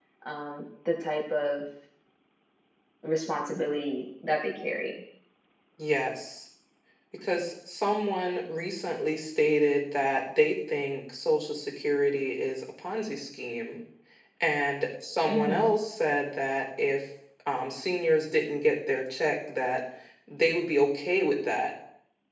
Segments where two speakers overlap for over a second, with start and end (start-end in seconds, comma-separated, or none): none